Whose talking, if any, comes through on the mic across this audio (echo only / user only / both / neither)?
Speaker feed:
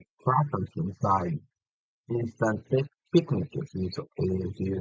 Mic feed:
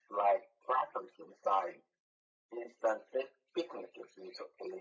echo only